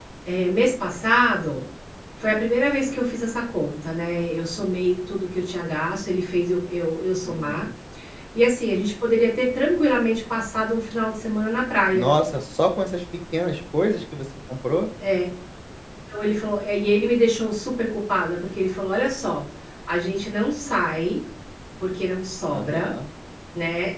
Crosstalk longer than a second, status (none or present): none